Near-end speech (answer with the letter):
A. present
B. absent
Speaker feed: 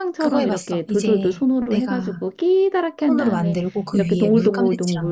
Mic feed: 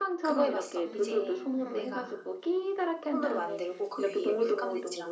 A